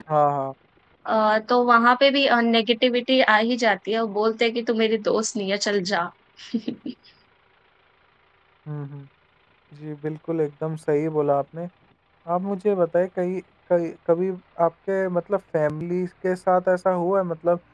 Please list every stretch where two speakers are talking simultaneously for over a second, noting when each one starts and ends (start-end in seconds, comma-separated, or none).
none